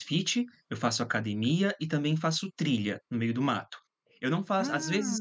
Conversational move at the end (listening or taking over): listening